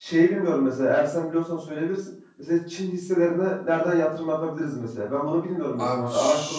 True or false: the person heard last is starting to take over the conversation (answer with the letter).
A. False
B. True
B